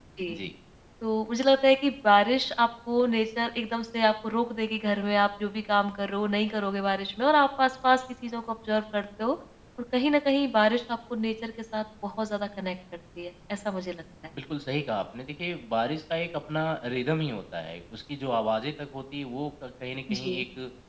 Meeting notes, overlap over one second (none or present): none